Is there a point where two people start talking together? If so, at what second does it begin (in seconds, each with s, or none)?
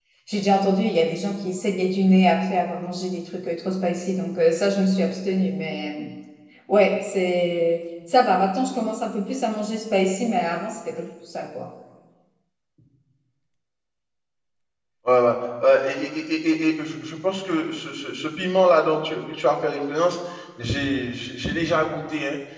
none